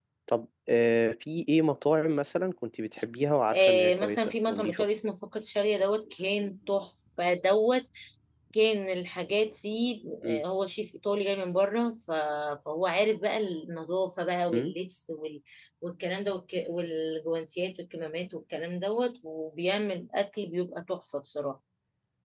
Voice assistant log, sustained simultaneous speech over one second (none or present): present